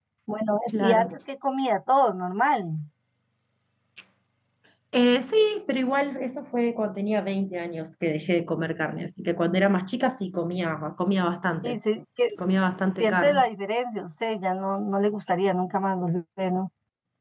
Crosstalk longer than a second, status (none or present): none